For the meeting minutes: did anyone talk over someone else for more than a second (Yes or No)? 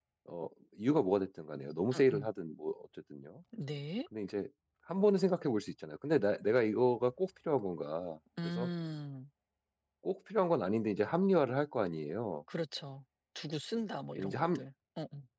No